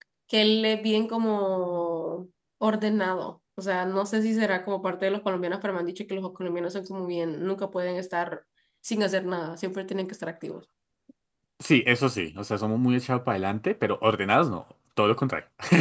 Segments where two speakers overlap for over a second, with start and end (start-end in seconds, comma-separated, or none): none